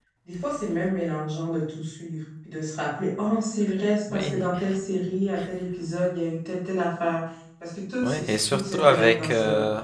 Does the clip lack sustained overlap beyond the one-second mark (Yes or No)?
No